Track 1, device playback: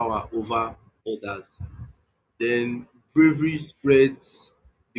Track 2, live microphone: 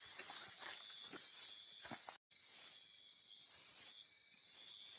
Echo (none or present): none